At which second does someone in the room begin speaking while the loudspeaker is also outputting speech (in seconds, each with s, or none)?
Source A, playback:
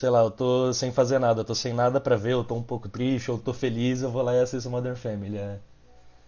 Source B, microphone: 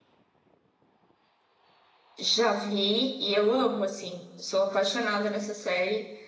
2.2 s